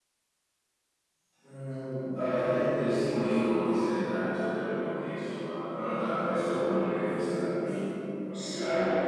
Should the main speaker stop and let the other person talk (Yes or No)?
Yes